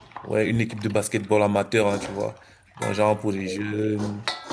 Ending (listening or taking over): listening